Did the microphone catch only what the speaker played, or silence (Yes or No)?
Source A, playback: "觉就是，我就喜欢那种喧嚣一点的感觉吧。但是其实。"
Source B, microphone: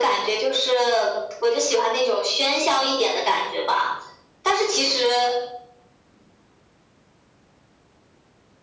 Yes